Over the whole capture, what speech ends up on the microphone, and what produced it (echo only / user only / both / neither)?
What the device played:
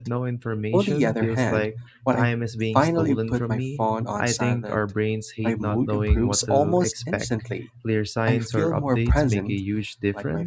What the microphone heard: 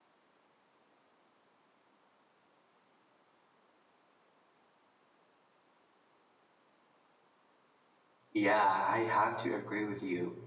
user only